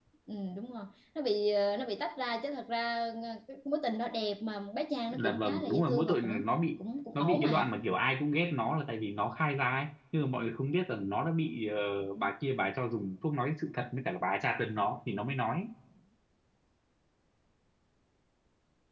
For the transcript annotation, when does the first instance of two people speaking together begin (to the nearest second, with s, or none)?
5 s